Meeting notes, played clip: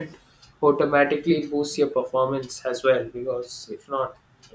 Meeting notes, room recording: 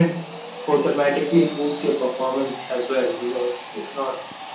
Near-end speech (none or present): none